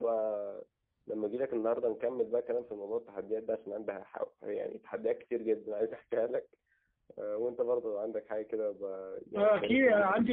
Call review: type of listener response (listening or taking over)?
taking over